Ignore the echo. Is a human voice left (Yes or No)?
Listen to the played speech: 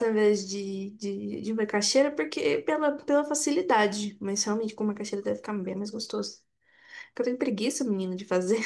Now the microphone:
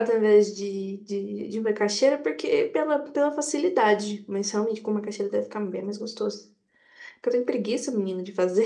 No